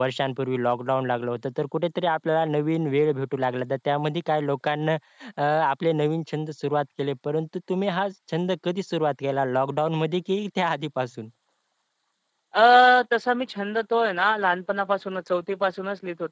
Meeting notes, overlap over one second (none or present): none